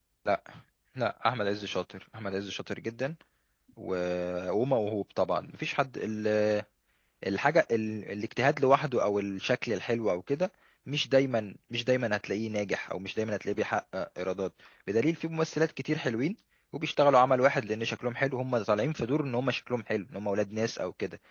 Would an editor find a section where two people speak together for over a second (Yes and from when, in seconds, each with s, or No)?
No